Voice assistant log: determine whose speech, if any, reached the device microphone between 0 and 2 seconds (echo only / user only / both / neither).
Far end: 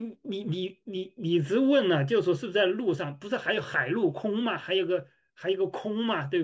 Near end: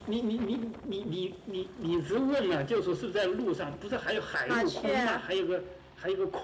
echo only